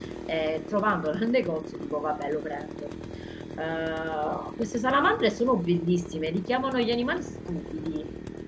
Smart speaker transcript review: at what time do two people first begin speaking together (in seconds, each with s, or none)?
none